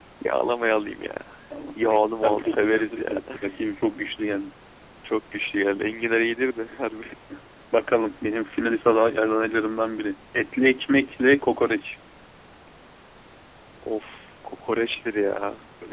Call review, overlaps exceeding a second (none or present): present